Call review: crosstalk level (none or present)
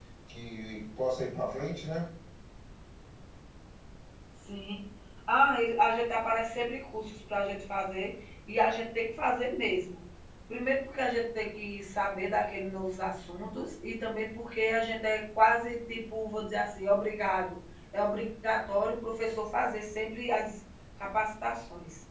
none